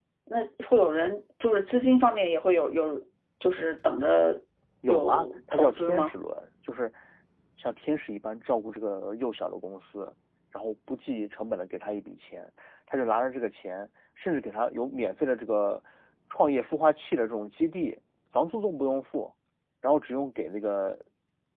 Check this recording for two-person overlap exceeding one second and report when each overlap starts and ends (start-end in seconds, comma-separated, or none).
4.9-6.1